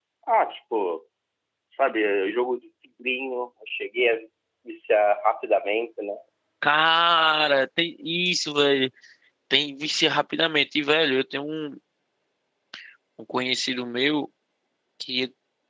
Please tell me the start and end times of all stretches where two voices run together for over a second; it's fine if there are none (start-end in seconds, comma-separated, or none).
none